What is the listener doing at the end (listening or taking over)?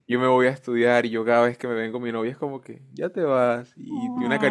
listening